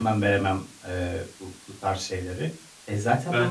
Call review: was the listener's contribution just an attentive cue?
Yes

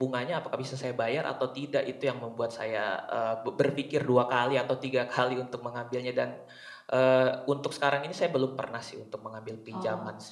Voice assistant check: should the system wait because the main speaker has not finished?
No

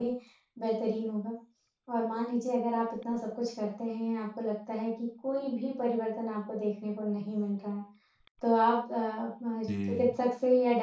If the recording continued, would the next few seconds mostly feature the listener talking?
No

